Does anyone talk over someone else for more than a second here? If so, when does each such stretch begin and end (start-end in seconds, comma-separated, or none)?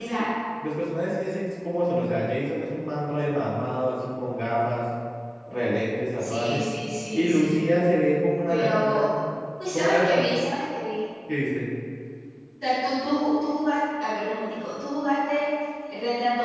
none